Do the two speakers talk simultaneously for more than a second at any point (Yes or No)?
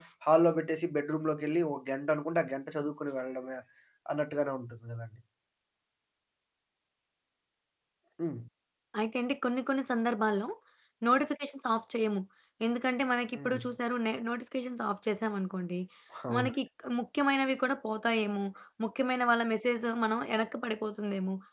No